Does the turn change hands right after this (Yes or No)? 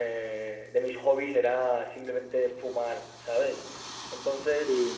No